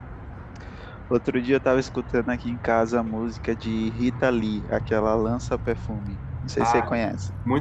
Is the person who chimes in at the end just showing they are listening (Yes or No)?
No